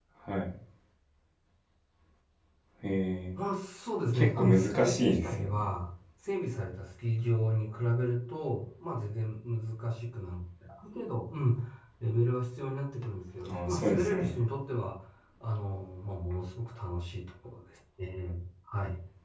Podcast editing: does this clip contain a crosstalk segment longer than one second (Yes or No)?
Yes